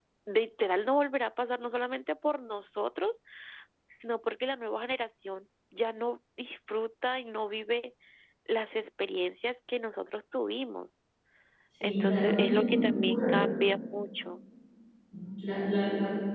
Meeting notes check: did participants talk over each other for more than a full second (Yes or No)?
Yes